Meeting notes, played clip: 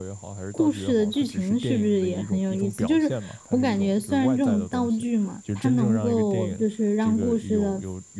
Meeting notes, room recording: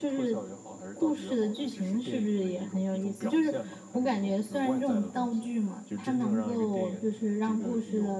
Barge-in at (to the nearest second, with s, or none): none